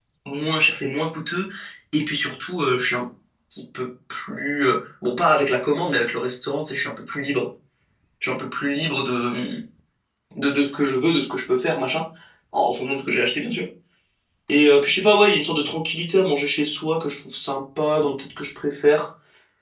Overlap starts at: none

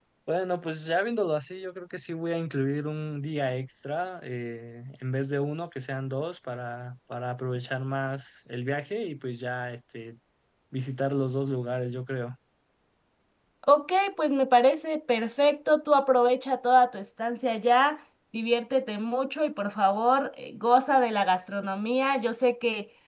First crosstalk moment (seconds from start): none

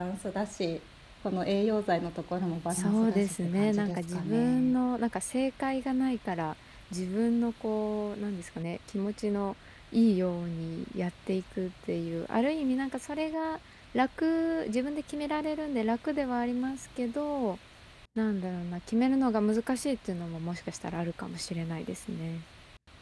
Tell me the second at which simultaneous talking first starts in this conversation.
2.7 s

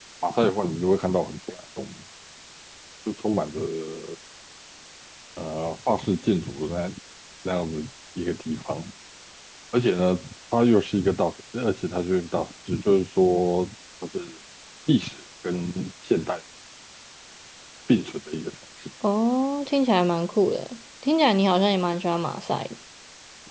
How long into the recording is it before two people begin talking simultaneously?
none

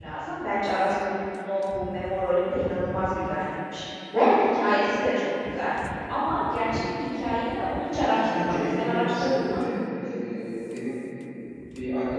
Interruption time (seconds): 8.0 s

